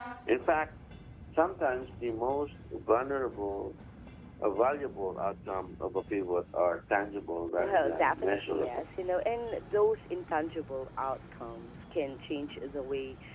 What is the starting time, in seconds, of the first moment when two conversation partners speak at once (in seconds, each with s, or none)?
7.6 s